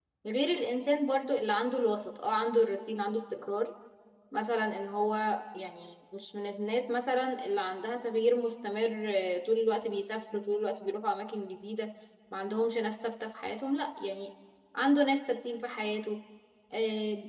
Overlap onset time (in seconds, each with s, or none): none